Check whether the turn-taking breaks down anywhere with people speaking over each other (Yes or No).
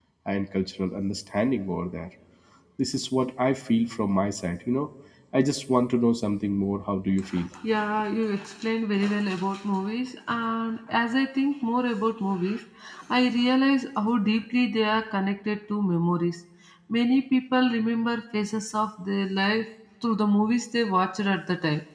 No